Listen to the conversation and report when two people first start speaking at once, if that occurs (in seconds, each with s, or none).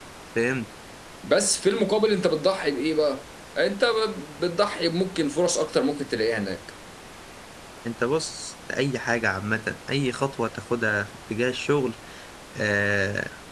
none